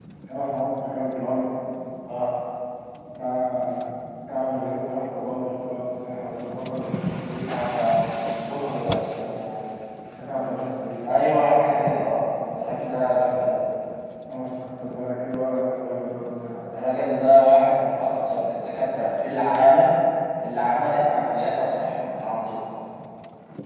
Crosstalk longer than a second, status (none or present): none